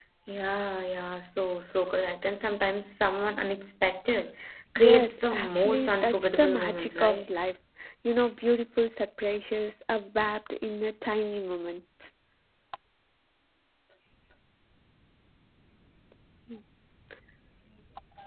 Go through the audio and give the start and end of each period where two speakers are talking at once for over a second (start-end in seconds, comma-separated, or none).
4.8-7.4